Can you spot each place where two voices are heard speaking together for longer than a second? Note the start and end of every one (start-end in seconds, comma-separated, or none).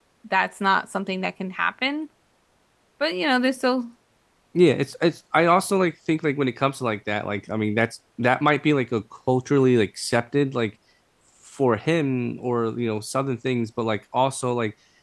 none